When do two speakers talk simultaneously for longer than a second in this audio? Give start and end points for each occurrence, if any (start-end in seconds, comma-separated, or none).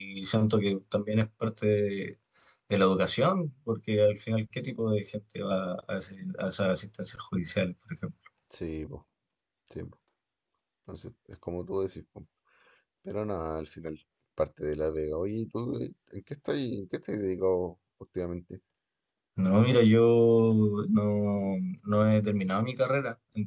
none